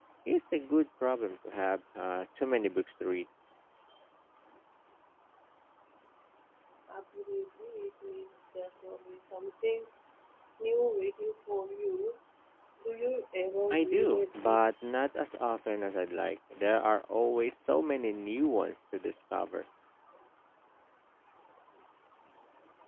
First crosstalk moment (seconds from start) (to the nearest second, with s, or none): 14 s